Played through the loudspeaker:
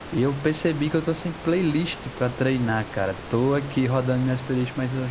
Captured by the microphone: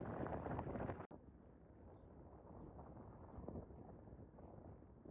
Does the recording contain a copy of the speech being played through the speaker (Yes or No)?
No